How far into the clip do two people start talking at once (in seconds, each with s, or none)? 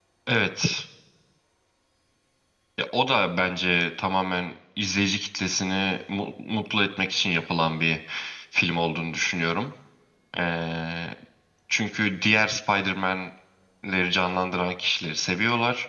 none